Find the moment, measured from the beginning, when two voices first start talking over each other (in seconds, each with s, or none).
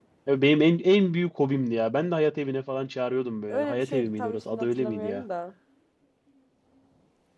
3.5 s